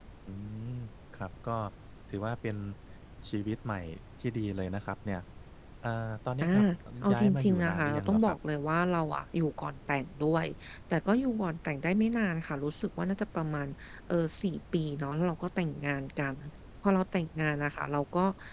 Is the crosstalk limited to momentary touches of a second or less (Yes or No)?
No